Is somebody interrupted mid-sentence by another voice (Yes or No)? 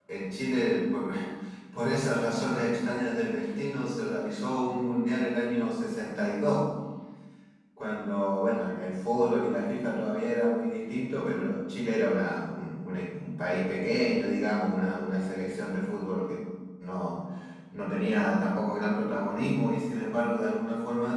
No